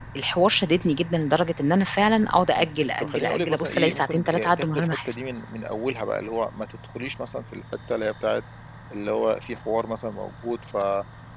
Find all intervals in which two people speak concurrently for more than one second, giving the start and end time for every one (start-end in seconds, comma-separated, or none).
2.6-5.2